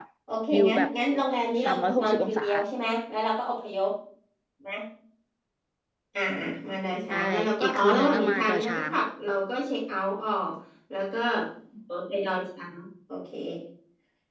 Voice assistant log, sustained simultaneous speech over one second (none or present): present